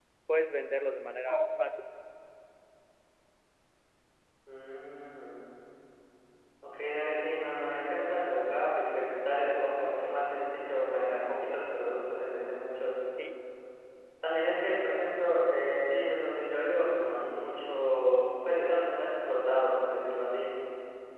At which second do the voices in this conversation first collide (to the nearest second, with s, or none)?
none